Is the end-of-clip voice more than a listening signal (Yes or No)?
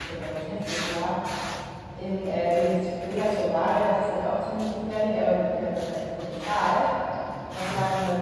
No